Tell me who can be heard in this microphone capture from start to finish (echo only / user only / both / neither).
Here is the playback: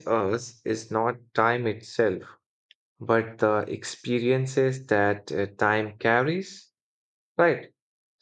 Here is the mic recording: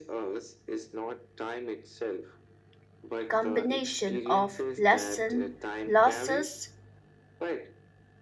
both